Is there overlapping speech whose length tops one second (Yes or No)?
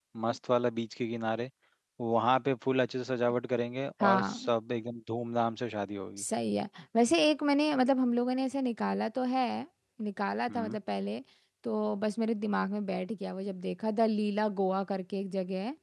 No